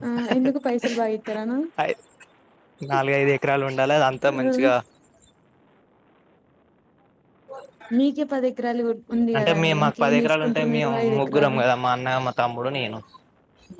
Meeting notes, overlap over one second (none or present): present